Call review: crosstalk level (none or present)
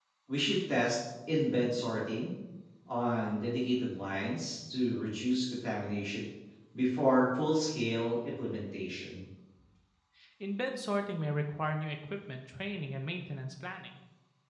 none